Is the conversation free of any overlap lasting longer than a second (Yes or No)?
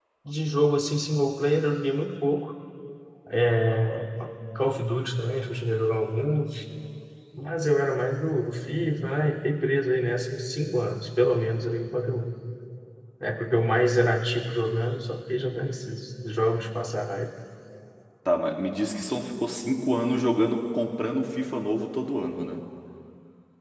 Yes